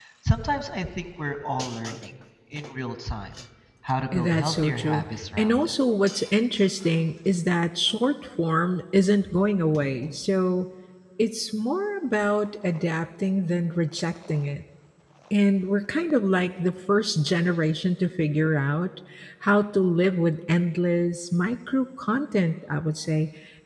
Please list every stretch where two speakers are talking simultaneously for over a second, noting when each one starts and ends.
4.1-5.7

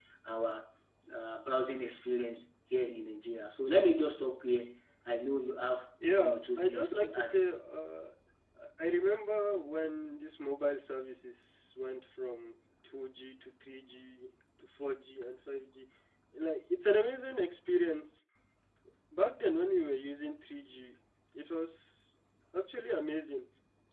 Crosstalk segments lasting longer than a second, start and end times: 6.2-7.4

